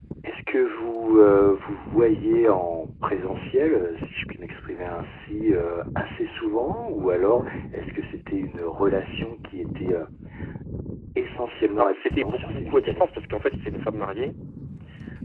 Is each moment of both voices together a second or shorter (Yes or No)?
No